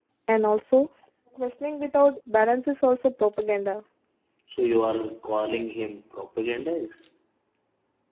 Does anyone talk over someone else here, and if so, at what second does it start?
none

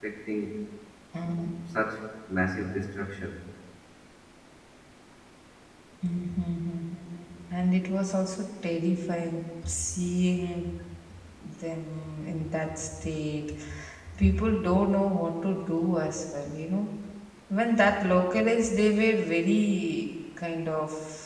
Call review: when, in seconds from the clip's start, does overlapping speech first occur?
none

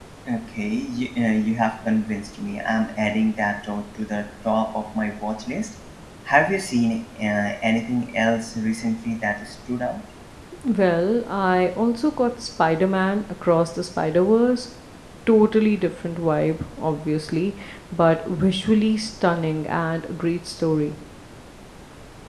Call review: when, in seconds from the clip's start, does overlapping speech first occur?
none

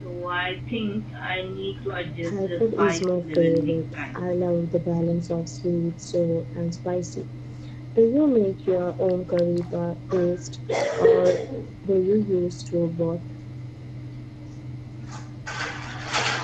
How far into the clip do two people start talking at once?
2.2 s

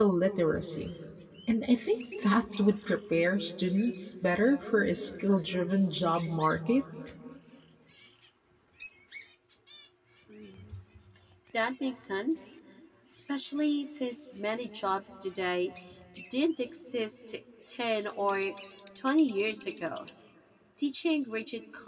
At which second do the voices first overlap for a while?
none

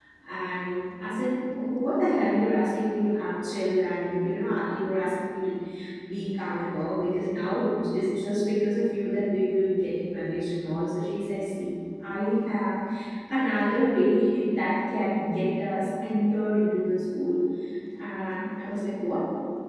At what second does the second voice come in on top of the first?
none

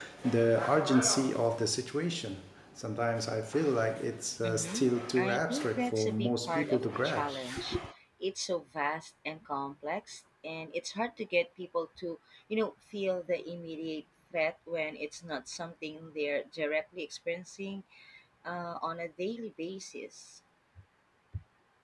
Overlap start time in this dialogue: 4.4 s

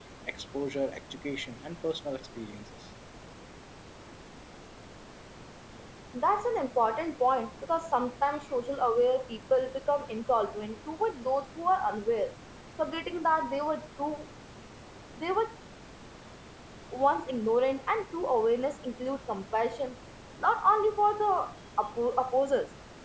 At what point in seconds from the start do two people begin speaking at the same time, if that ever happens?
none

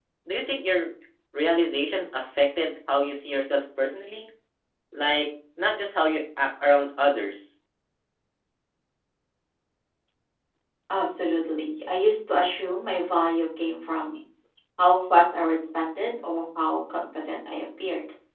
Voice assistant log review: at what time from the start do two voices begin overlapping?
none

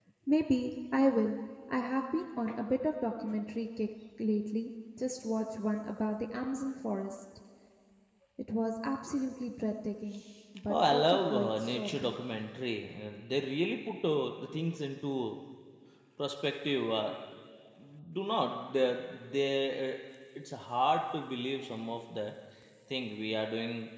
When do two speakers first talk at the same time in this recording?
10.7 s

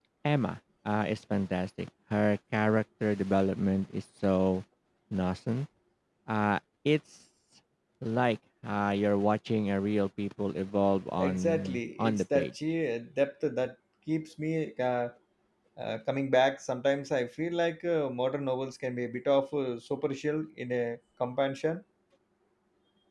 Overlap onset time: 11.2 s

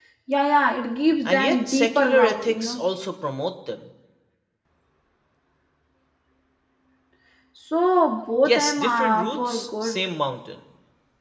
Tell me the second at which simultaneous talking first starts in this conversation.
1.2 s

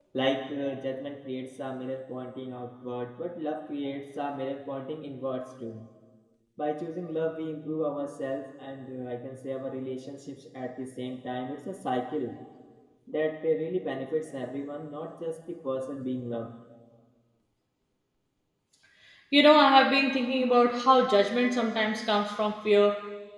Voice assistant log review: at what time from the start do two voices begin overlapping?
none

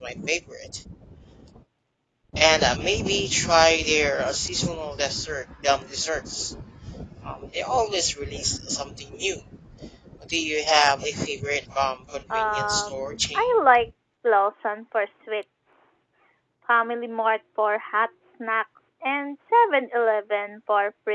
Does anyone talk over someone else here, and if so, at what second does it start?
12.3 s

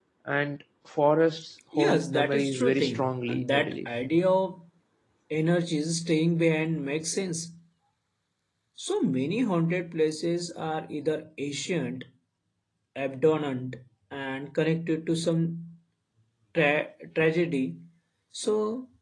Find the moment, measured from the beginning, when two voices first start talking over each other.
1.7 s

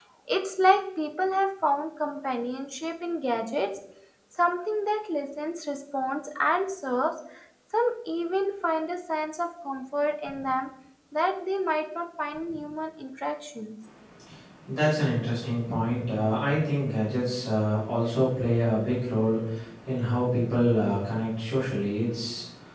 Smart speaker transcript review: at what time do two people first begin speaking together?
none

